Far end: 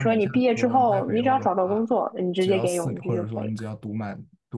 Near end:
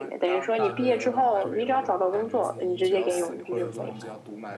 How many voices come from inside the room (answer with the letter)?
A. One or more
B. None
A